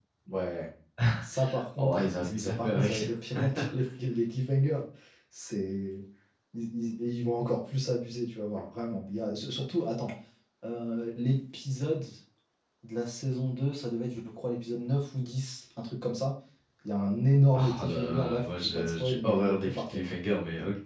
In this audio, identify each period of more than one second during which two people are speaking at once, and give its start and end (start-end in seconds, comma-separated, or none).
1.8-3.0, 17.6-20.0